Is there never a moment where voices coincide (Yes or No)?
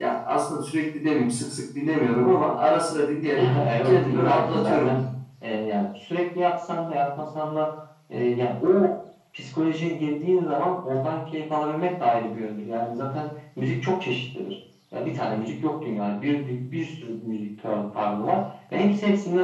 No